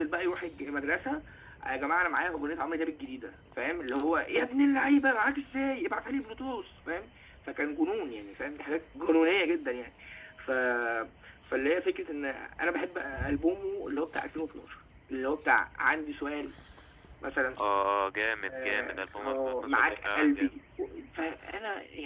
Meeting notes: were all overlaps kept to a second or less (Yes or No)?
No